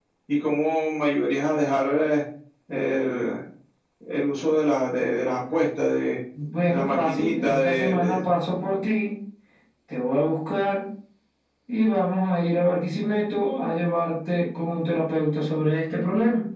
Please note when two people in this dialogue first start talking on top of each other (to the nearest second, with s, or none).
7 s